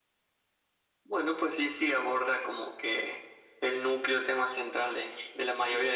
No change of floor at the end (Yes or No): Yes